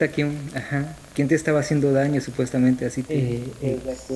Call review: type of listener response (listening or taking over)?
taking over